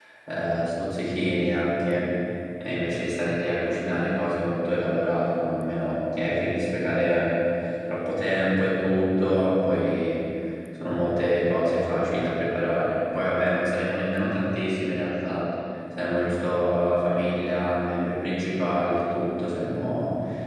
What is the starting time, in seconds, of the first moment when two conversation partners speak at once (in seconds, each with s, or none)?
none